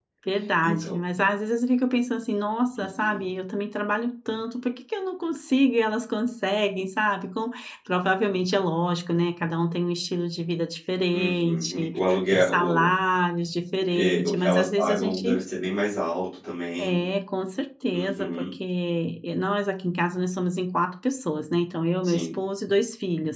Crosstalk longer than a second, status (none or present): present